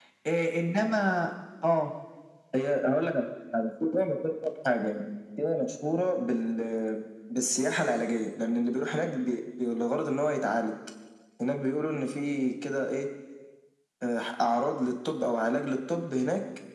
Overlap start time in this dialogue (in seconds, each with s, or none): none